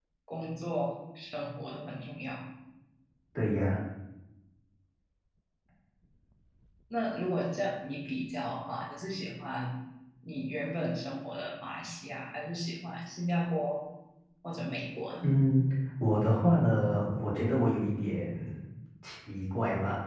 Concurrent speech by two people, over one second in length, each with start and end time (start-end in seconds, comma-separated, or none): none